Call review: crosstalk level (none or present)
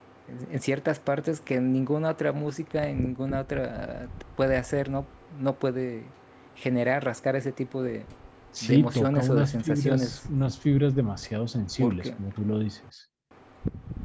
present